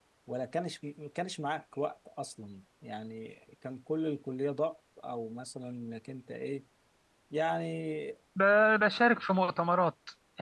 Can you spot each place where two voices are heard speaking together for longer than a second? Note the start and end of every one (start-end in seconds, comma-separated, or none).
none